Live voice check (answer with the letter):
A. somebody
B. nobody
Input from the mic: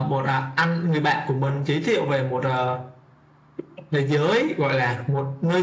B